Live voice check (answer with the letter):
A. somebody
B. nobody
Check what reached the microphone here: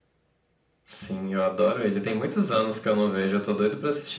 B